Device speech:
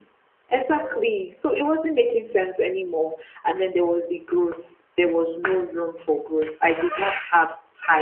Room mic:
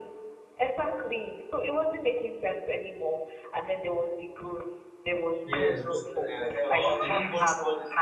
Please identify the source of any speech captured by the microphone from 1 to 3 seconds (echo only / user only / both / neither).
echo only